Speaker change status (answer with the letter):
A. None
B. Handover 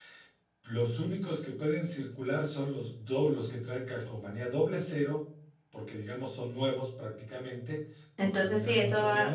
B